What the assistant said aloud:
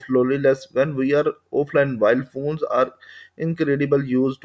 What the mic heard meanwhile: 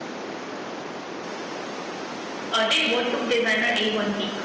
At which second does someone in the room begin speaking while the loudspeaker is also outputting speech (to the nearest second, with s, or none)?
3 s